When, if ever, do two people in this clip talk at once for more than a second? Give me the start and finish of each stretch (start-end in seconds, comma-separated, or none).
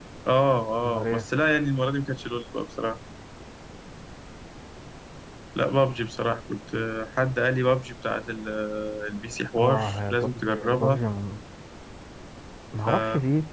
9.6-11.0